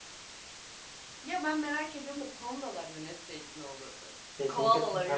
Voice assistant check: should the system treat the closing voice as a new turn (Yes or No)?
Yes